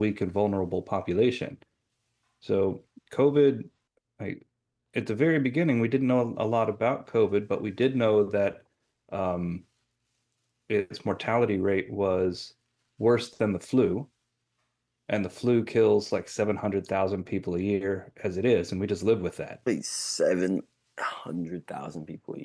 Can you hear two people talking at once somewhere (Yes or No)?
No